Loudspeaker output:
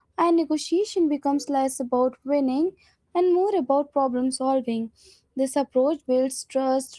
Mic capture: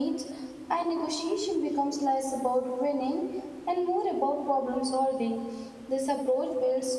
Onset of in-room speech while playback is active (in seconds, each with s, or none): none